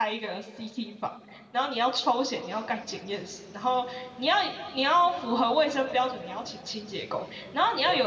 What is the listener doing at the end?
listening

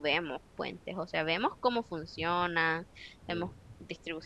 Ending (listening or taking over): listening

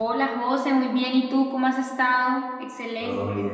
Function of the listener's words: taking over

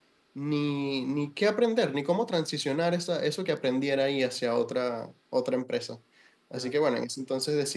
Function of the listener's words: listening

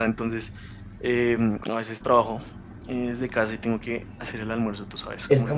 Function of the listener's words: taking over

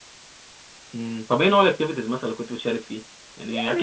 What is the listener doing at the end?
taking over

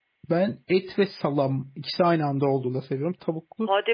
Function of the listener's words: taking over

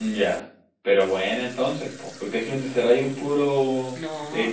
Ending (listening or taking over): listening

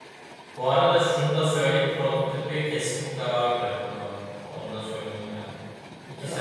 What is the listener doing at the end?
listening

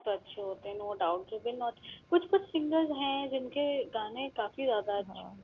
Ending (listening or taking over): taking over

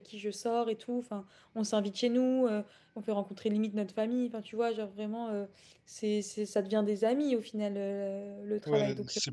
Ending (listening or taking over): taking over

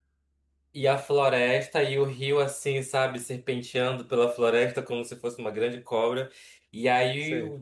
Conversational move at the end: listening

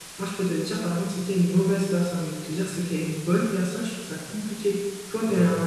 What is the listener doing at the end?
listening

